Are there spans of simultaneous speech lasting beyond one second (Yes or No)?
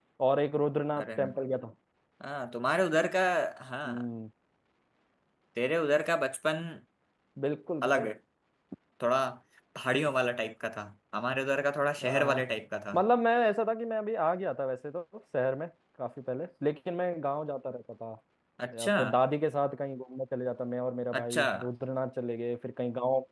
No